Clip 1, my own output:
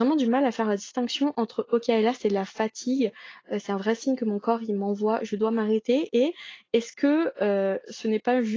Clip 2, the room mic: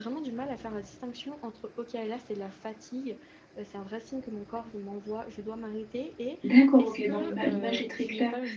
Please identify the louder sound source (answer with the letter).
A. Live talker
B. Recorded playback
A